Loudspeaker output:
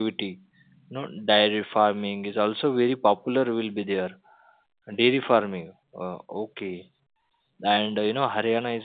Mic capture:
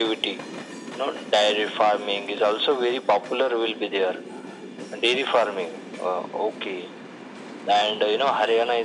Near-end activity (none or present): none